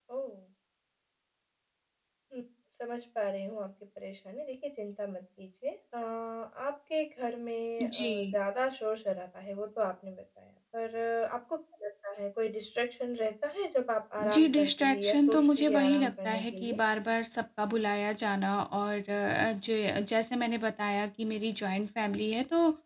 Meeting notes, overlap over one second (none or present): present